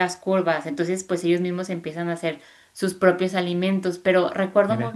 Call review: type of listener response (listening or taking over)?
listening